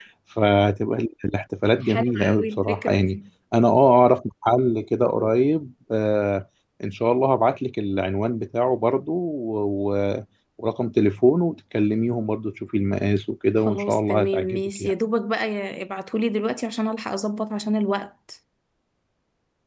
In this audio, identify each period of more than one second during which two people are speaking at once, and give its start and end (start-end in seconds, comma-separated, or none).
1.8-3.2, 13.7-14.9